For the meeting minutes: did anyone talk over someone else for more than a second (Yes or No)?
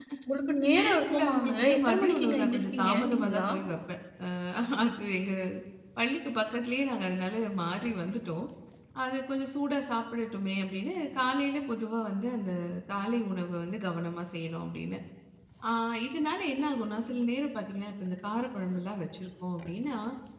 Yes